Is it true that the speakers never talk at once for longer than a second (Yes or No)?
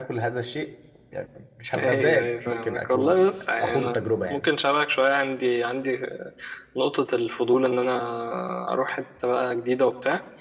No